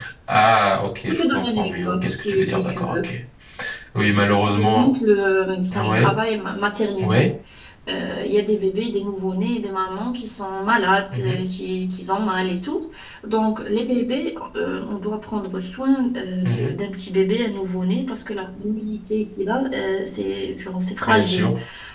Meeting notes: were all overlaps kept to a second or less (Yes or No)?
No